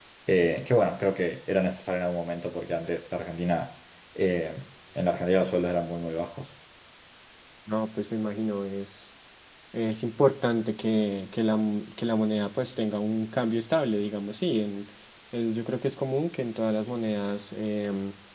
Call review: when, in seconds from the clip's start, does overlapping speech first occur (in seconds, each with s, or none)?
none